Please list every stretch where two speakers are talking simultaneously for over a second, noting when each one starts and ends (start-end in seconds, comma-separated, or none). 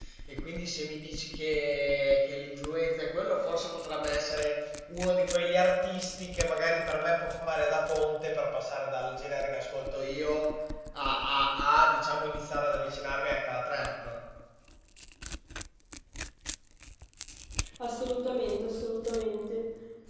none